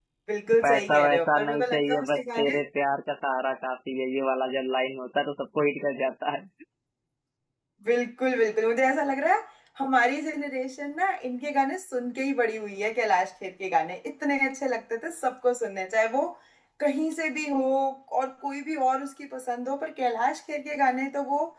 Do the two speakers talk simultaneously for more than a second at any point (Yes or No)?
Yes